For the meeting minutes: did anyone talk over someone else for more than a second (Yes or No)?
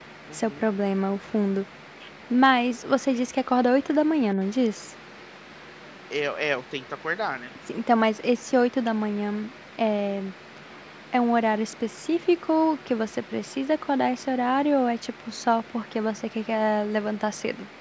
No